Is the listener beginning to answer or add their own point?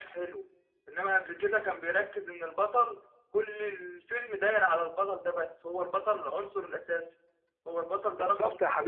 Yes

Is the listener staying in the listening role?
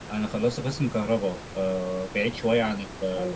Yes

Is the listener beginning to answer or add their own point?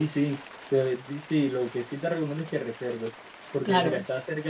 No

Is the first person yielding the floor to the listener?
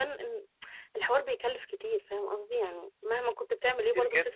Yes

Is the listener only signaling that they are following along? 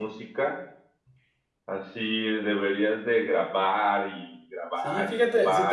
No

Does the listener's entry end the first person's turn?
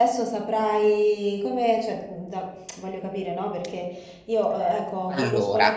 No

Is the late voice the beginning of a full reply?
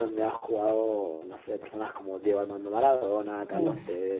No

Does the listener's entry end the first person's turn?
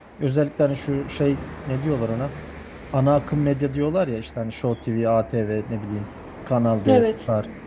No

